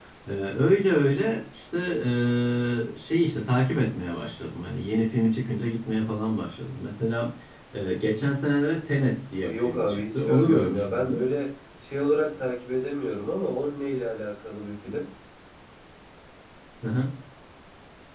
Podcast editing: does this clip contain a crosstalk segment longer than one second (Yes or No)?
Yes